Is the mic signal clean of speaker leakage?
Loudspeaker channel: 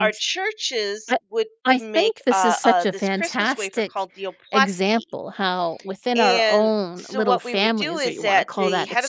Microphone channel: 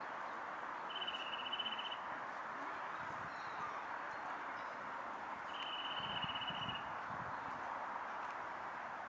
Yes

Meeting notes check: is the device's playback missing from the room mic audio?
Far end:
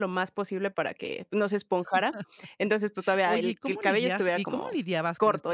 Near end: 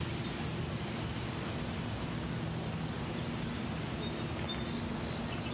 Yes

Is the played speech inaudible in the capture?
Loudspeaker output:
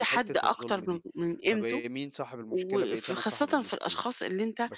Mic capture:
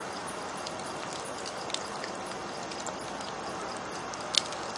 Yes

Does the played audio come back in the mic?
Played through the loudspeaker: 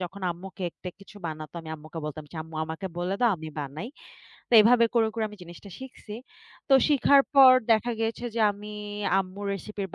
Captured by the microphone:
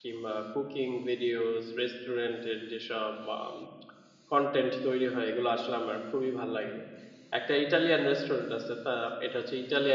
No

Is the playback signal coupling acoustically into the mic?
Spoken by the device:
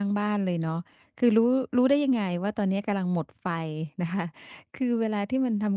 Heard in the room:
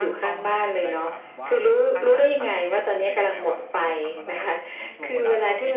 Yes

